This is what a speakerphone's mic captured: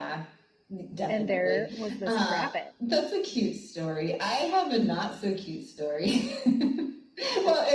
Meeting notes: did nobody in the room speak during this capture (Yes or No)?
No